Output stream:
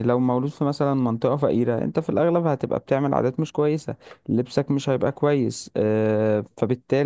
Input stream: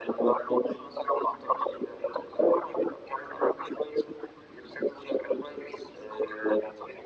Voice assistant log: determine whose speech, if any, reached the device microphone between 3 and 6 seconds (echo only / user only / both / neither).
echo only